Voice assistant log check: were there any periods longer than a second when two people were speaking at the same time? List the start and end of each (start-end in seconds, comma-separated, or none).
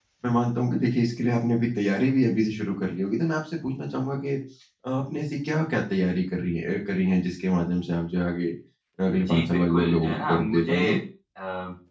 9.1-10.7